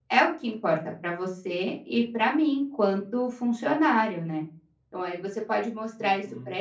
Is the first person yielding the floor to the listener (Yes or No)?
No